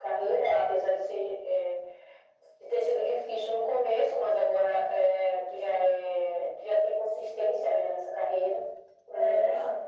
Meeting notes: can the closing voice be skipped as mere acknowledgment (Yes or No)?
Yes